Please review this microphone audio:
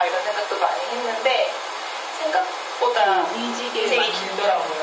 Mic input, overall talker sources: both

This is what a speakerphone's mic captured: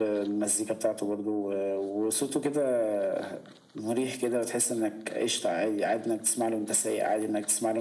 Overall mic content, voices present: echo only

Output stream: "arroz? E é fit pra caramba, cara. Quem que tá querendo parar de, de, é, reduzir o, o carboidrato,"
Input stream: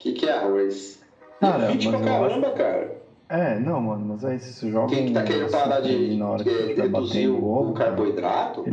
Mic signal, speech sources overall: both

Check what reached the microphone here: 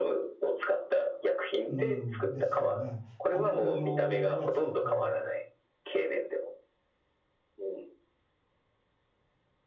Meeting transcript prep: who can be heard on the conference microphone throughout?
both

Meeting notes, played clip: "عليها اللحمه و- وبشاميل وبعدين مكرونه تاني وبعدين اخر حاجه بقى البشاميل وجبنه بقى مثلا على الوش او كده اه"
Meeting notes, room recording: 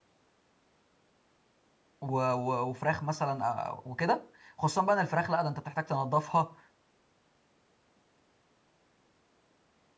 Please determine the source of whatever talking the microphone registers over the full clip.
user only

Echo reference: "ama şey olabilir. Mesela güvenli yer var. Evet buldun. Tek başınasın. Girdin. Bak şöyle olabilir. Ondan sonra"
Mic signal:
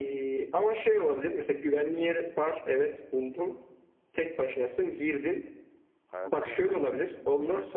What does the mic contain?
both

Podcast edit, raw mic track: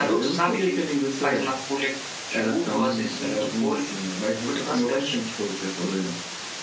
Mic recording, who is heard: echo only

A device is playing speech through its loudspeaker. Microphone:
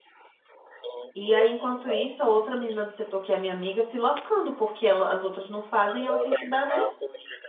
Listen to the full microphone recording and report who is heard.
both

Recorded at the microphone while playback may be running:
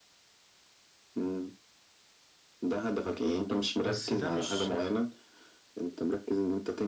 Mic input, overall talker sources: both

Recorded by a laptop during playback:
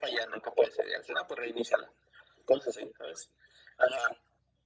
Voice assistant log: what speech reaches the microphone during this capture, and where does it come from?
echo only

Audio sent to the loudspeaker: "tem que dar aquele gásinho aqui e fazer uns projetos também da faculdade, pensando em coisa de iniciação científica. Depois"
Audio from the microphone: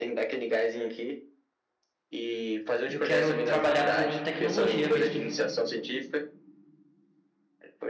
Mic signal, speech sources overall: both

